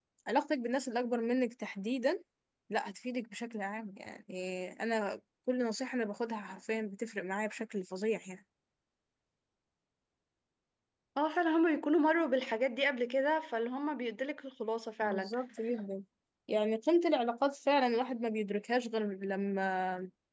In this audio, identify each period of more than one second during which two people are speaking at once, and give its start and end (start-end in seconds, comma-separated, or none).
none